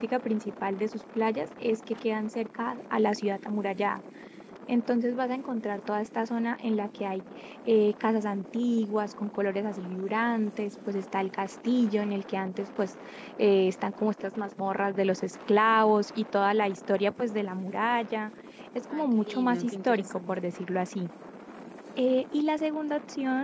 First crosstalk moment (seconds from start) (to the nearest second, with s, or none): 19 s